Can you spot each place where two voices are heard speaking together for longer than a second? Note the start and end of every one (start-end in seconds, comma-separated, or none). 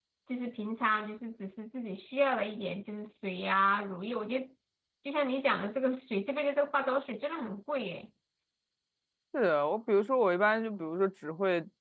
none